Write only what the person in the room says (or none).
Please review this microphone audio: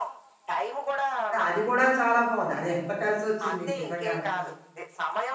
సో అది కూడా చాలా బావుంది. అది ఎంత కలిసొచ్చింది మీకు నిజంగాను.